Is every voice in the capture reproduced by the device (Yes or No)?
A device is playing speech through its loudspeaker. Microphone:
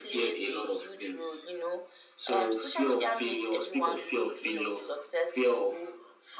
Yes